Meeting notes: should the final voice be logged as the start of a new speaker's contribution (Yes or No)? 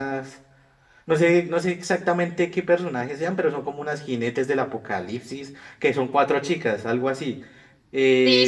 Yes